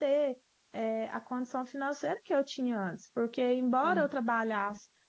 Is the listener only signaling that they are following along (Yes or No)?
Yes